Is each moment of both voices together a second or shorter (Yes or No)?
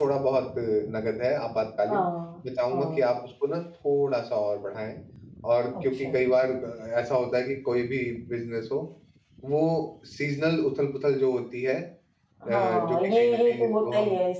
No